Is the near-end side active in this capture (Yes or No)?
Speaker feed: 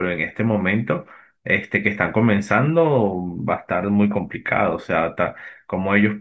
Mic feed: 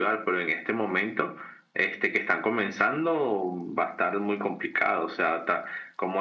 No